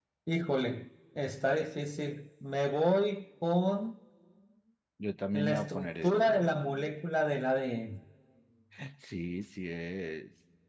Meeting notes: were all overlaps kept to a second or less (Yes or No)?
No